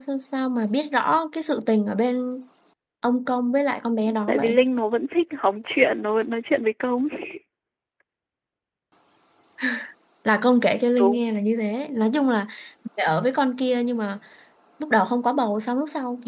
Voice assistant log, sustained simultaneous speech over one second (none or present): none